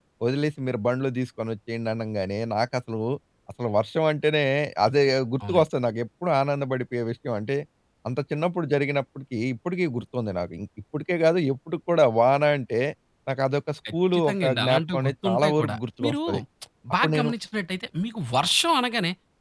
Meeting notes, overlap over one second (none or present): present